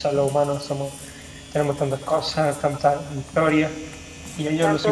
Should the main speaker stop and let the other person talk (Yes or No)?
No